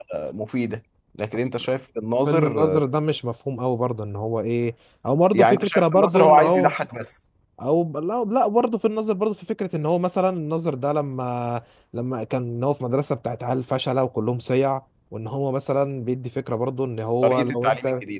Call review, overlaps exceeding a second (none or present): present